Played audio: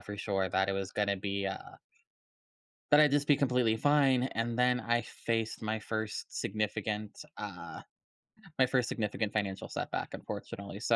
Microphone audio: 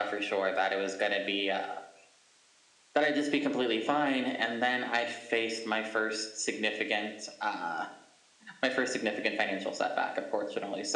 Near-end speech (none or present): none